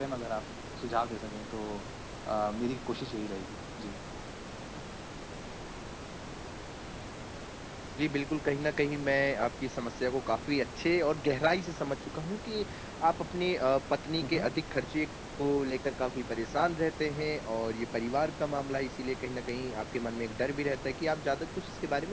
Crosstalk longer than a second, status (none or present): none